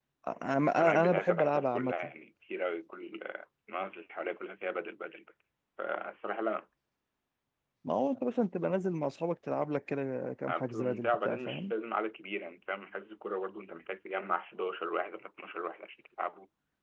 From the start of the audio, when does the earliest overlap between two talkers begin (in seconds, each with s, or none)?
0.7 s